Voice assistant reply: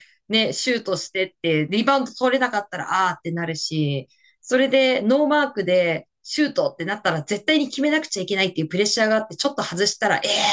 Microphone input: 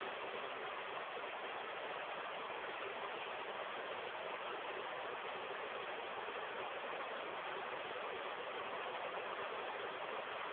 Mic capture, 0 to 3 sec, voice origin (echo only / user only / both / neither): neither